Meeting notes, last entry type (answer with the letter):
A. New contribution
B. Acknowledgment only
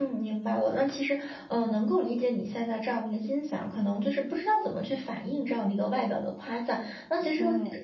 B